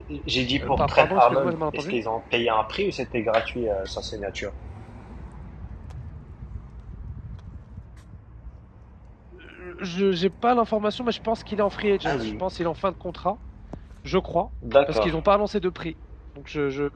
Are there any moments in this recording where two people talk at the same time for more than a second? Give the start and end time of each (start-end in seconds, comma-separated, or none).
0.6-1.9